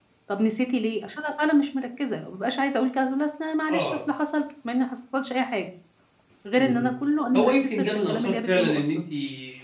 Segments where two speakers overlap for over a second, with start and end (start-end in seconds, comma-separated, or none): 7.3-9.0